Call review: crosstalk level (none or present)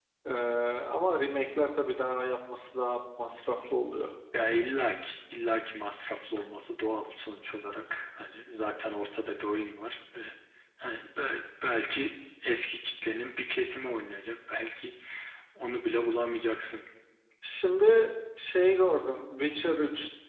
none